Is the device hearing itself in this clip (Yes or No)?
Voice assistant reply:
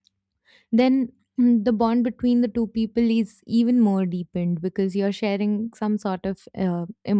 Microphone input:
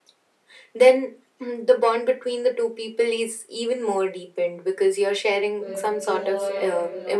Yes